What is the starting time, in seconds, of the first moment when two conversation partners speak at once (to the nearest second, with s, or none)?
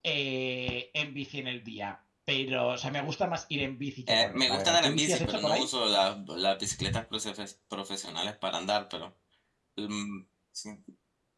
4 s